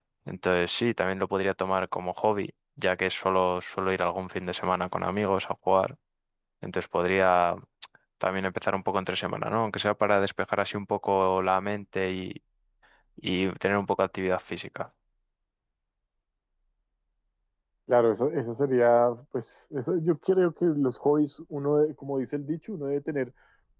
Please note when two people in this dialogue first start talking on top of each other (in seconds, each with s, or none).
none